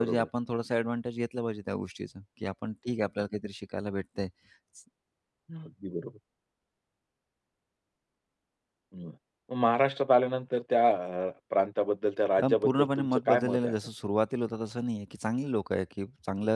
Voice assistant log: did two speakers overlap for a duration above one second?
Yes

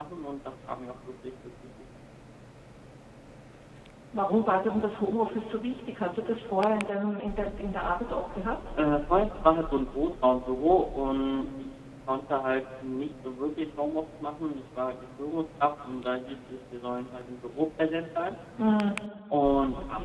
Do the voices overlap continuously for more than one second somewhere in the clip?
No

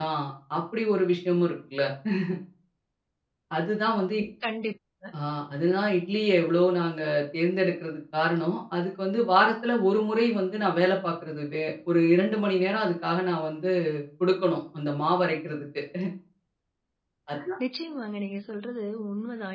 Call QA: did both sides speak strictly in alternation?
Yes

